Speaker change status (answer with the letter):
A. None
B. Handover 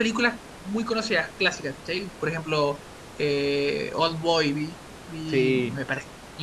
A